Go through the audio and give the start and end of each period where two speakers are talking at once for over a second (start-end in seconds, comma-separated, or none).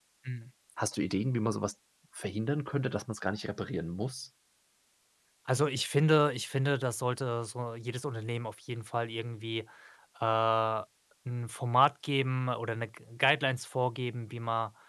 none